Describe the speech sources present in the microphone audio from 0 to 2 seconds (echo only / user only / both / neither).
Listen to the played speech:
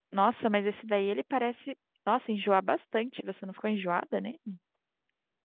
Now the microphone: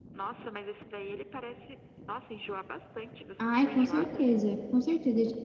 echo only